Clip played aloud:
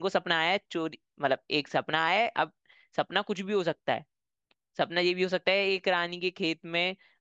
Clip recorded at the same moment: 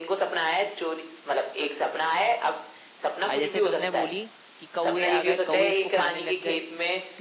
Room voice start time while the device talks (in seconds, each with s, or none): 3.3 s